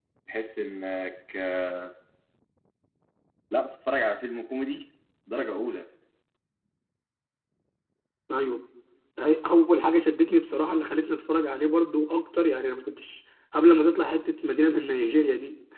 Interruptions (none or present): none